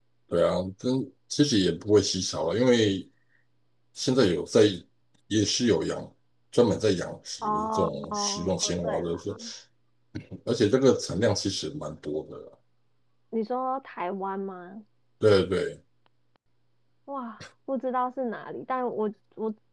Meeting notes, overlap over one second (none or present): present